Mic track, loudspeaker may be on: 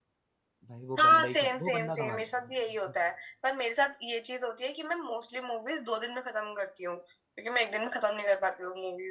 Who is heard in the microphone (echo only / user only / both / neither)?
both